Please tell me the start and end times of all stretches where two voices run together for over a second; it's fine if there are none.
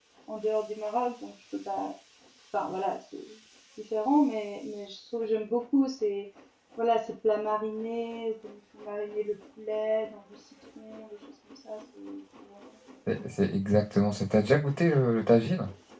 none

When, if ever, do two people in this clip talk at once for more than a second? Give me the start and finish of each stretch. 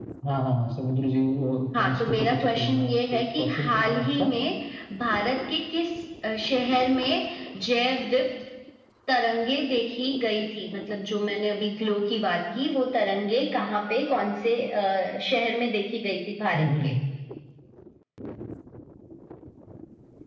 1.8-4.3

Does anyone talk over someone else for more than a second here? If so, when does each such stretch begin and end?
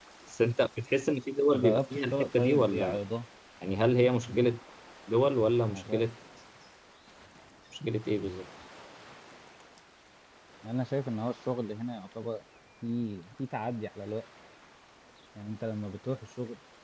1.5-3.0

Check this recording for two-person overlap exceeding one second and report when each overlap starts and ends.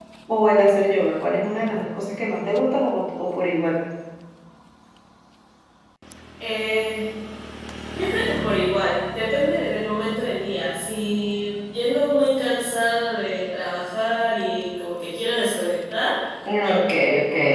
none

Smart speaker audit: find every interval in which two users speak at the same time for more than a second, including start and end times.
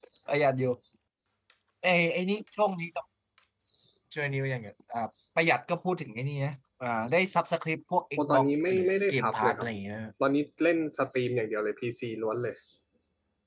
8.2-9.7

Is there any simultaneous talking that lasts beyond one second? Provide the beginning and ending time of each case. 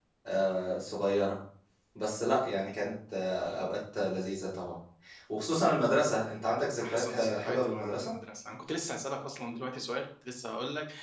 6.8-8.1

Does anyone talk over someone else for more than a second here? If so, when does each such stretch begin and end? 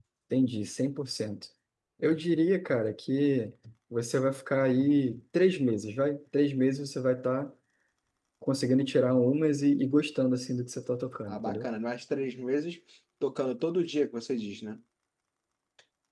none

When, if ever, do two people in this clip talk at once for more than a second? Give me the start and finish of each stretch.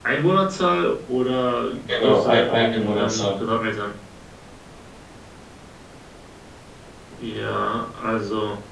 1.9-3.4

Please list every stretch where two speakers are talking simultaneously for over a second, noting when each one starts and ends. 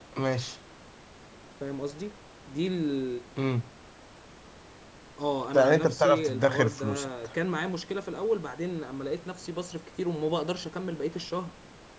5.6-7.3

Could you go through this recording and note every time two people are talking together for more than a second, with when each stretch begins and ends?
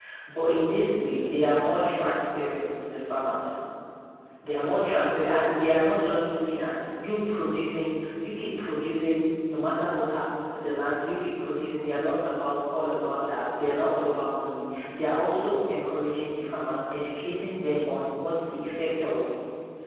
0.8-2.2, 4.6-5.8

